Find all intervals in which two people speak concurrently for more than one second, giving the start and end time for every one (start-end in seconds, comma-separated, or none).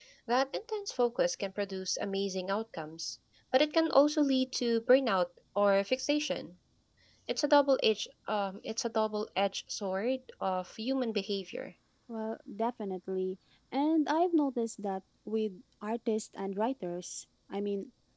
none